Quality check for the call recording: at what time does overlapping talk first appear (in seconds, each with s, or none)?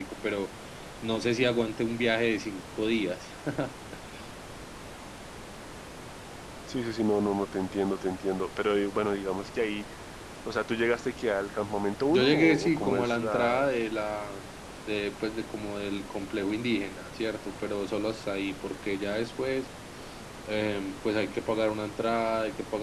12.1 s